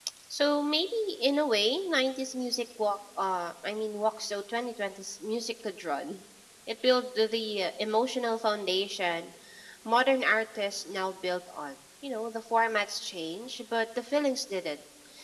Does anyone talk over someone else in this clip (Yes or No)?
No